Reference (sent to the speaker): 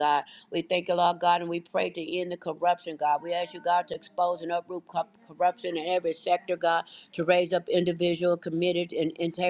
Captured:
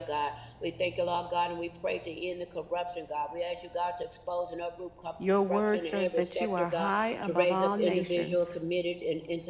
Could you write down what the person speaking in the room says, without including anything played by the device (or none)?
your word says that you are high above all nations